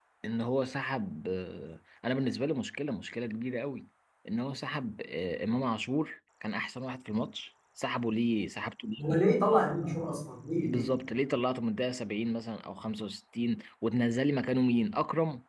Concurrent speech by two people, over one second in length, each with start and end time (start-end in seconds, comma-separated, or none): none